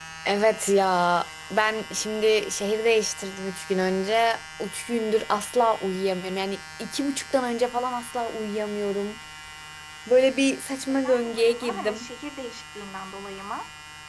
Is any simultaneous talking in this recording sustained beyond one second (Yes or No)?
Yes